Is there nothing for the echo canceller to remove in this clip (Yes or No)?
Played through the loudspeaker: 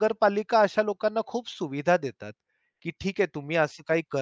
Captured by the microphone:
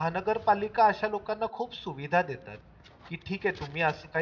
No